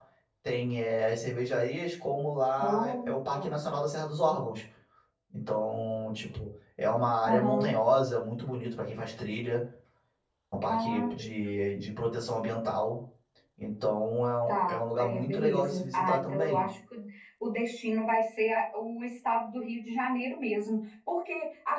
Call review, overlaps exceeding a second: present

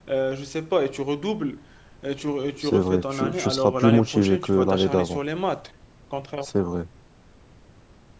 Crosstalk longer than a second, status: present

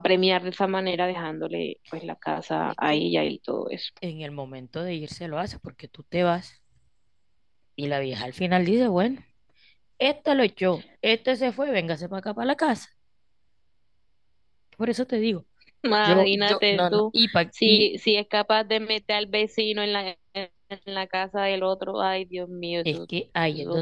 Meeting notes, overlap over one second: present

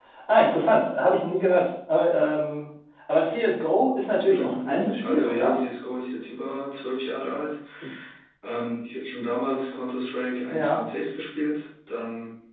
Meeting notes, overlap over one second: present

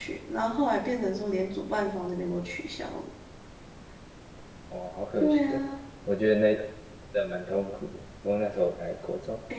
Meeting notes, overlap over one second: none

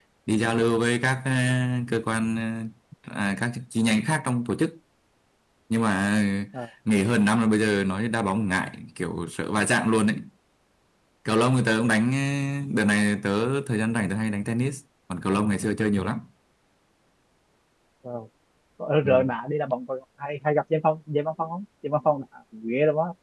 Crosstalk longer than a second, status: none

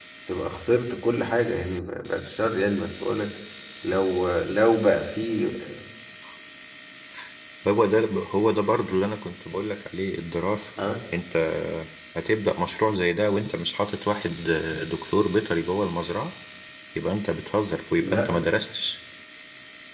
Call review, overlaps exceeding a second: none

